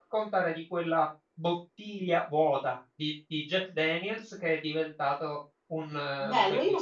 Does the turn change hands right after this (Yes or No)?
Yes